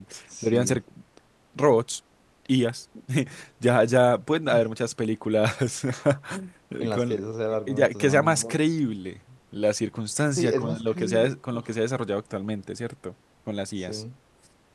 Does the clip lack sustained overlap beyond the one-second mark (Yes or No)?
No